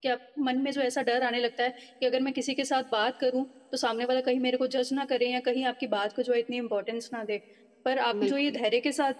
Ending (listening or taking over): listening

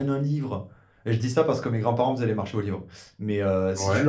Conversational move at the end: listening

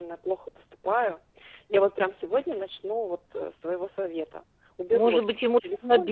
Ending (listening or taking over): taking over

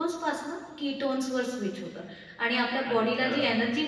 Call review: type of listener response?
listening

